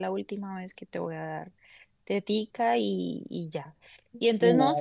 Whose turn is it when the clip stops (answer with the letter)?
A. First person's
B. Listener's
A